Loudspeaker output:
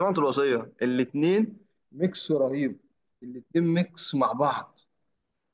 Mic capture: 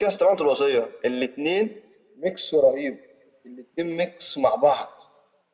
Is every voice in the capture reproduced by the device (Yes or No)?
Yes